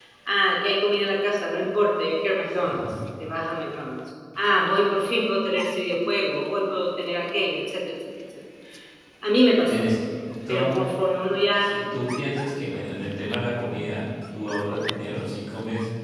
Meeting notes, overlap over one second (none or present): none